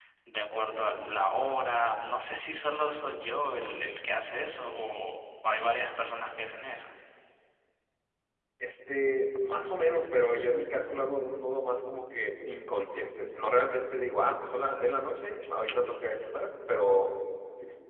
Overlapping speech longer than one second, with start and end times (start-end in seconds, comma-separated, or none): none